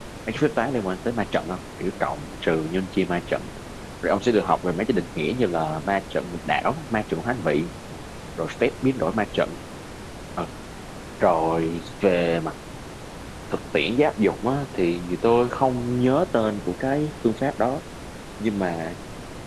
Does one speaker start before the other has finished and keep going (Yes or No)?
No